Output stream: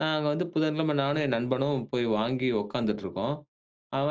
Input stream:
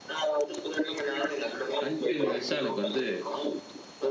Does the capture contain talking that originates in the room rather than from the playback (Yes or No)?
Yes